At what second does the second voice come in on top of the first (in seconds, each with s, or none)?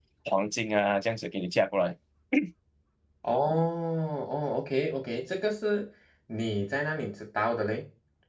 none